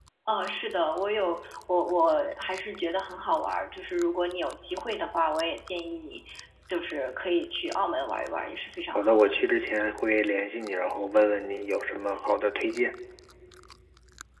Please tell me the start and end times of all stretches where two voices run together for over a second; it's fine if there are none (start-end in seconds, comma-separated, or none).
none